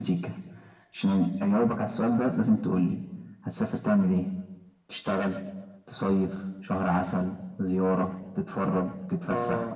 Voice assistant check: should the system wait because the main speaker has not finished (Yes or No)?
No